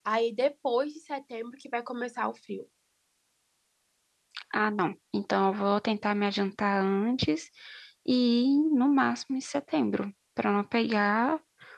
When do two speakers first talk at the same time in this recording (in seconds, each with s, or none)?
none